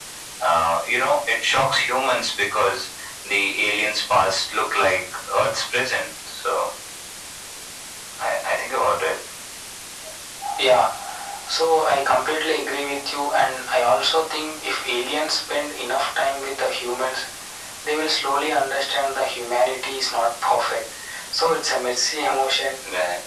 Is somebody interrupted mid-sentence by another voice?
No

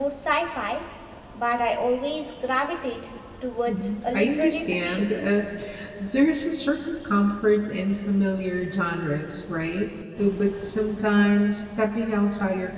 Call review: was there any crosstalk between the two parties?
Yes, from 3.7 s

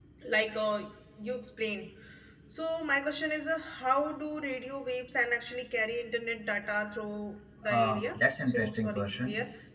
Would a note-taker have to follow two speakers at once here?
Yes, from 7.6 s

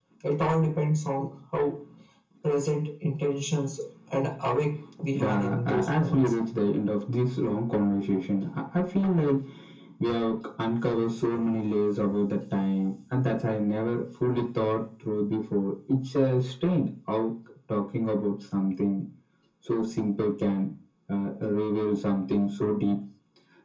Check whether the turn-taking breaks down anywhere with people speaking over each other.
Yes, from 5.2 s

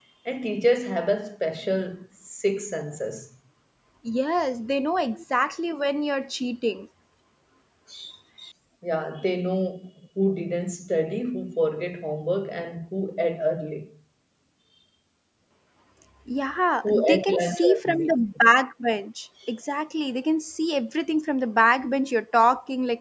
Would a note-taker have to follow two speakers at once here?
Yes, from 16.8 s

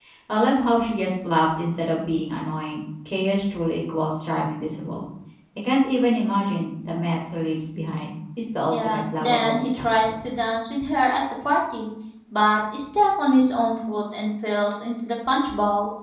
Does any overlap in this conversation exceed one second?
Yes, from 8.7 s

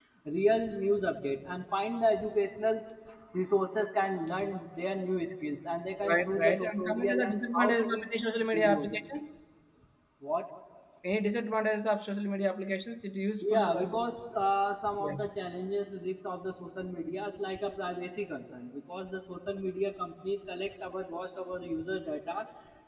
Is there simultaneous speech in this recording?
Yes, from 6.1 s

